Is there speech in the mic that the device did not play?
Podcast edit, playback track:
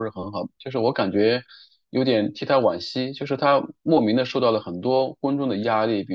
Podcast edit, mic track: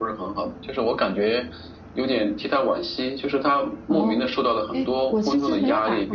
Yes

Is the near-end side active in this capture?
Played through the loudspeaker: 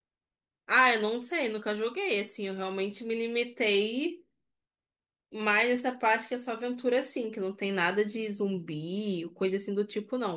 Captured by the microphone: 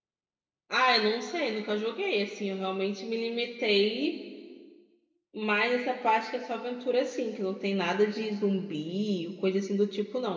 No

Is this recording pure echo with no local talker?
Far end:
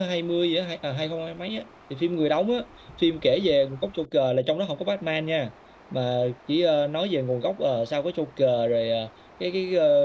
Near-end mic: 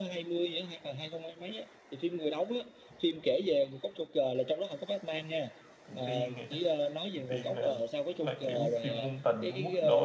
No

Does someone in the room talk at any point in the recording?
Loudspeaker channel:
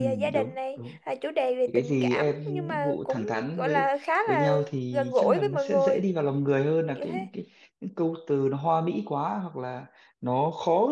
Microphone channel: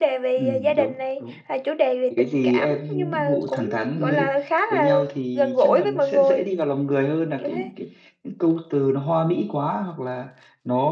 Yes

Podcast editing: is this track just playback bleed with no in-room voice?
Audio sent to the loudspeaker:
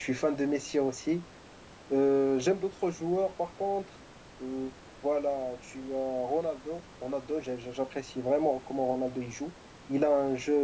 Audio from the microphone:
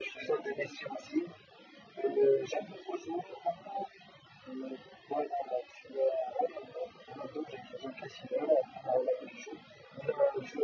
Yes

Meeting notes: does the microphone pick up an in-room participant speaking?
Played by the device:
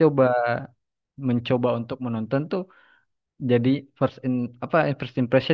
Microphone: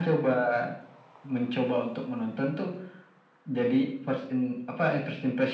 No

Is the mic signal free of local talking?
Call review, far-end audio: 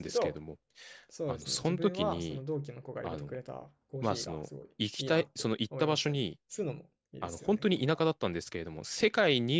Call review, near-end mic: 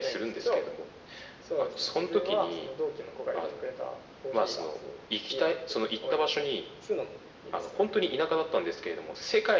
Yes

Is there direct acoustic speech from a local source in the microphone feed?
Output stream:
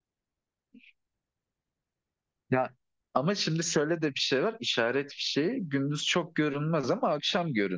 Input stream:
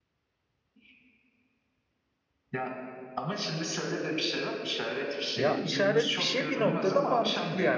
Yes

